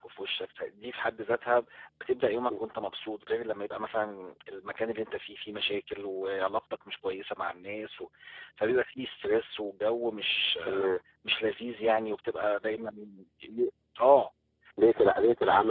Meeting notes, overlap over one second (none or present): none